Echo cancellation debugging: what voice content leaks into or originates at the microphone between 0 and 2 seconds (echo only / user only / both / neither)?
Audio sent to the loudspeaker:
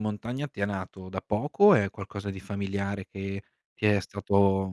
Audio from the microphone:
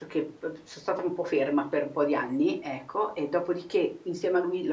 user only